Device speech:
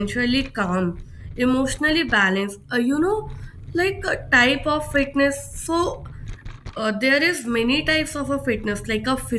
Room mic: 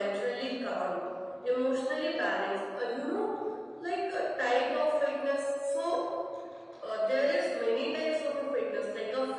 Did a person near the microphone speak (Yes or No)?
No